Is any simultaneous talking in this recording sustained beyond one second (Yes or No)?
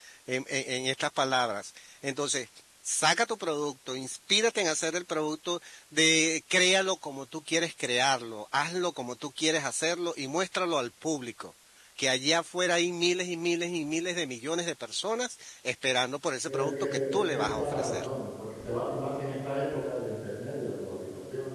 Yes